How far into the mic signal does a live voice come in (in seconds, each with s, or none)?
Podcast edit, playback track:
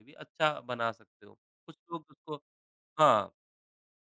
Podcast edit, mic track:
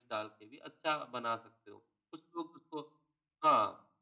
none